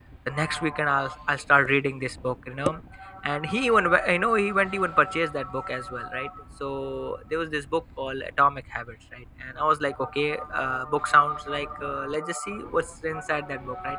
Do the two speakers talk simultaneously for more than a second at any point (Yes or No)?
No